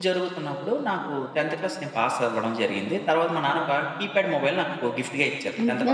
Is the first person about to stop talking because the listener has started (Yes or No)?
Yes